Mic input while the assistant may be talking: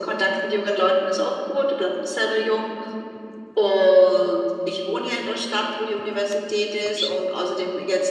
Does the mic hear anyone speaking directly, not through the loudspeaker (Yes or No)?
Yes